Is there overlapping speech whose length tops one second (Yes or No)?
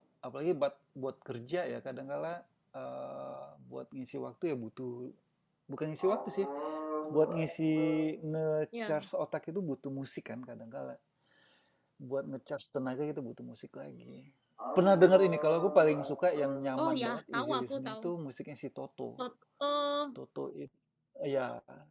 Yes